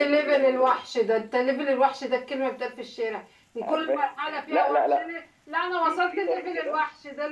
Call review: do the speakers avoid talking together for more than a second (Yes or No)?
No